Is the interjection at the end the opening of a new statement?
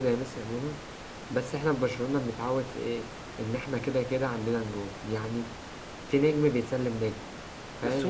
Yes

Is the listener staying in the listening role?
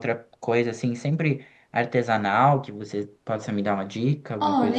No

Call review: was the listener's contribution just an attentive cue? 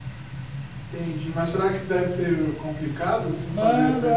No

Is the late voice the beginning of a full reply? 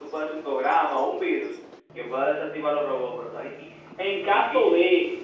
Yes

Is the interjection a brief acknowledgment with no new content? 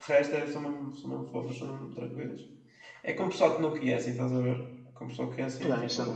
No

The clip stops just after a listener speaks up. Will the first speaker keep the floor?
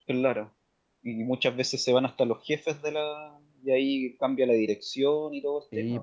No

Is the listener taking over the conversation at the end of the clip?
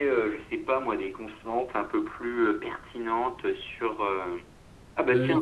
No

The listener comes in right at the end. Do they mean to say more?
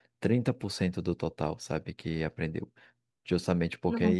No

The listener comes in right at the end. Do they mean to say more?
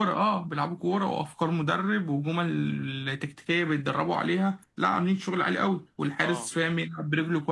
No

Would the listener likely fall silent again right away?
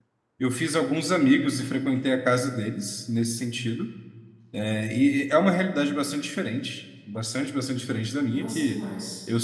Yes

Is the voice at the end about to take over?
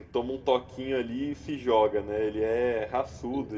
No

